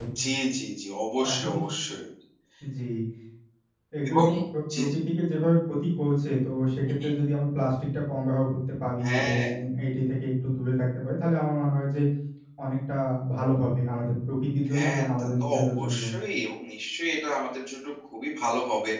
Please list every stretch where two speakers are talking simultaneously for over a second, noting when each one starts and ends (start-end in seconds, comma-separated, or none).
14.8-16.1